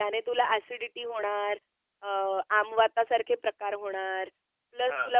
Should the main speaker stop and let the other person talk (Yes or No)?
No